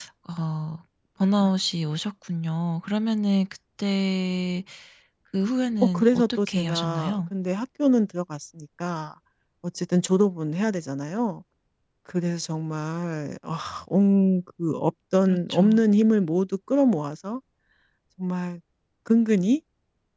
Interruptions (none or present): present